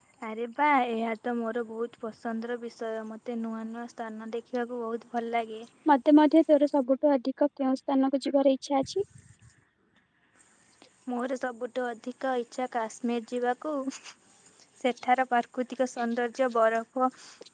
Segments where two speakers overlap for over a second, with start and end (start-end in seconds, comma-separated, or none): none